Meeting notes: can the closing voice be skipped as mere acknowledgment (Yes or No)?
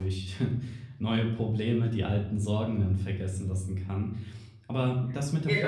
No